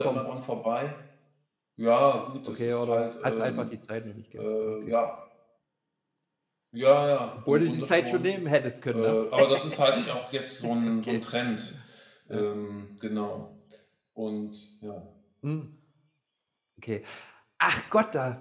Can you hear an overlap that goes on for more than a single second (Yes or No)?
Yes